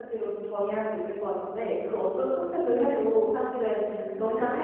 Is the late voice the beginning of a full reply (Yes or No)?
No